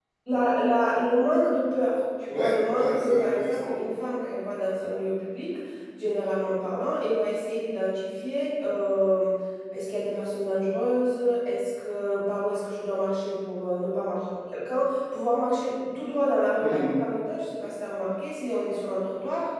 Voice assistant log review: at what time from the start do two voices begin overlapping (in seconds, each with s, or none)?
2.3 s